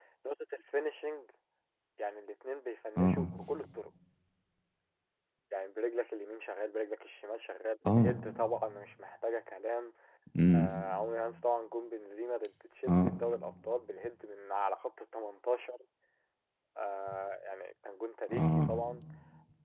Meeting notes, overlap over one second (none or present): none